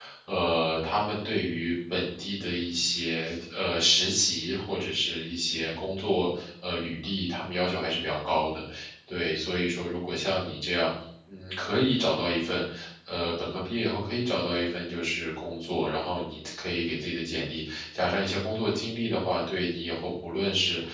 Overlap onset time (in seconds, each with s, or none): none